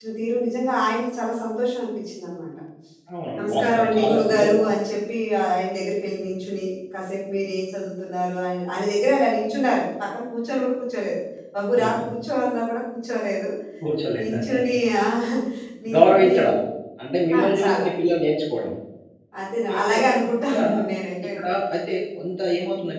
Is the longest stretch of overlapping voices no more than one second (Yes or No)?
No